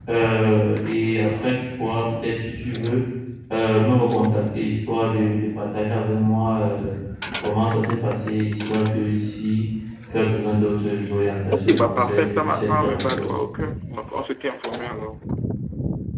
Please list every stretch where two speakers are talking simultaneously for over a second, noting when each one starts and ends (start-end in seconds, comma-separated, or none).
11.5-13.3